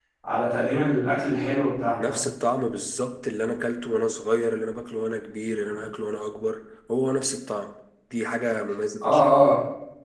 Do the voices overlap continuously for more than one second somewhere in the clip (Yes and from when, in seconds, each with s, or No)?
No